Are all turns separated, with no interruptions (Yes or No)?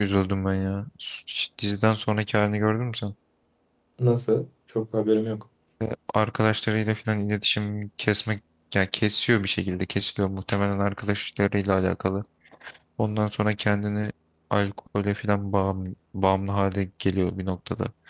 Yes